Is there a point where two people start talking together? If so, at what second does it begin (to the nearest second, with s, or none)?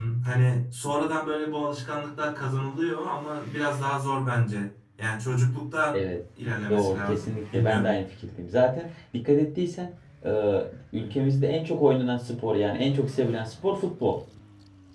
7 s